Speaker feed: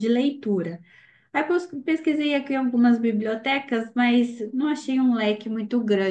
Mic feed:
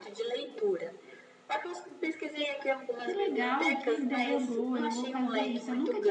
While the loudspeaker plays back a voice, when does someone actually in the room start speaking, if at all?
3.0 s

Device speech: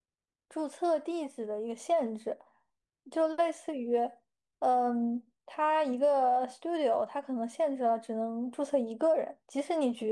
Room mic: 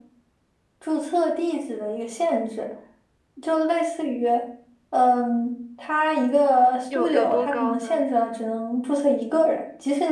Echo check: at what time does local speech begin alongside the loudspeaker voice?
6.9 s

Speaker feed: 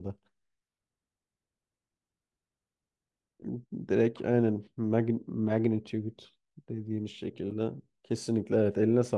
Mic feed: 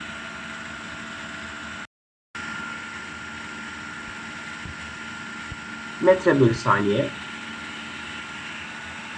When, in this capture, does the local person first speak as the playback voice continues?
6.0 s

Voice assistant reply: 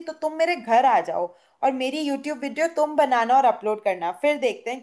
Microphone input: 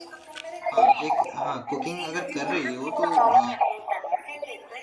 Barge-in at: 0.7 s

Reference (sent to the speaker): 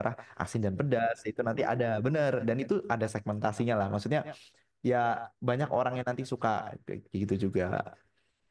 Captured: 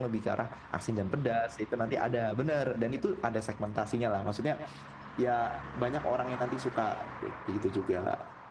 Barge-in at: none

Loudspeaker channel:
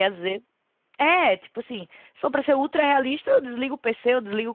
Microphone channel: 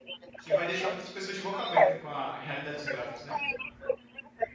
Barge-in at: 0.4 s

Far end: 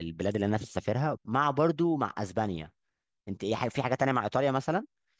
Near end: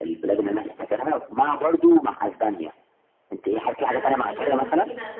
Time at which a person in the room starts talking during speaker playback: 3.8 s

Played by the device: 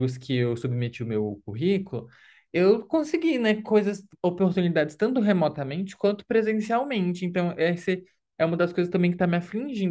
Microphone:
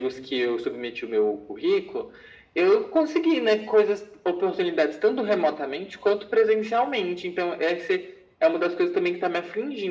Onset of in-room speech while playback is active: none

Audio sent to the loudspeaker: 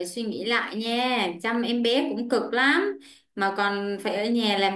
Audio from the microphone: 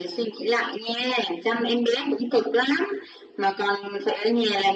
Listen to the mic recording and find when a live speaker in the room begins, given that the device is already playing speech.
none

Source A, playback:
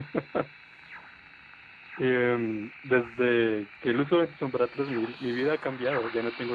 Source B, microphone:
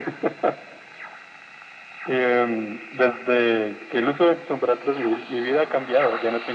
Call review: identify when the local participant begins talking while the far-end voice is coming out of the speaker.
none

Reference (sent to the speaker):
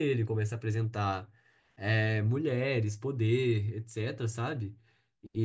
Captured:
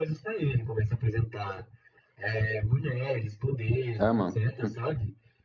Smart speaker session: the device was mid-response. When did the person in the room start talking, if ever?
4.0 s

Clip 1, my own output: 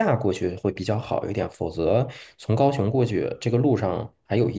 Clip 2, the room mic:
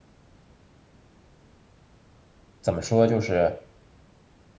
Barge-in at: 2.6 s

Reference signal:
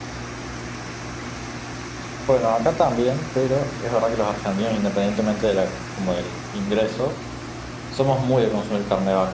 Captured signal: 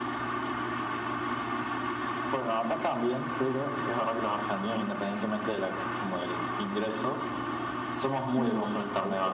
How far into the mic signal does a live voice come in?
8.3 s

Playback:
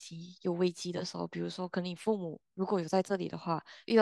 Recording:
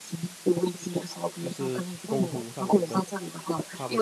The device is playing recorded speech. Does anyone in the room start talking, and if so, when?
1.4 s

